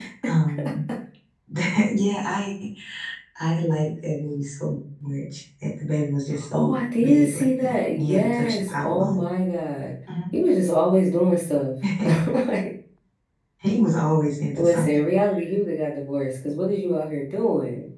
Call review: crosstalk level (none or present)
present